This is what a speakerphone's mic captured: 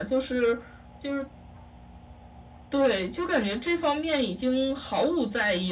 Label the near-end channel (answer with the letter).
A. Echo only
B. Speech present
A